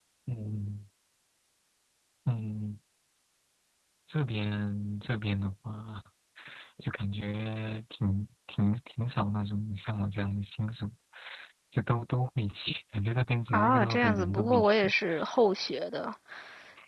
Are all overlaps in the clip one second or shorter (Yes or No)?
No